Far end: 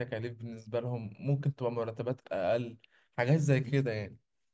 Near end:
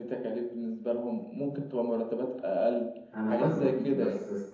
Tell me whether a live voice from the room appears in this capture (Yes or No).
Yes